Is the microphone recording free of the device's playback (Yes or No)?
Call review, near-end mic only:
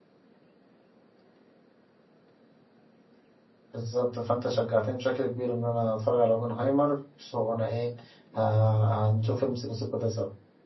Yes